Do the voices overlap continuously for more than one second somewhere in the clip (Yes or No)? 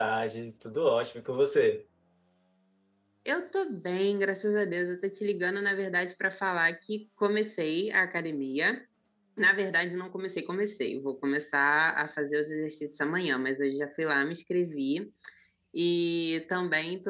No